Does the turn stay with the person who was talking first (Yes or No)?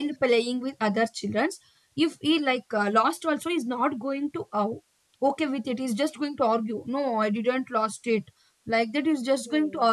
Yes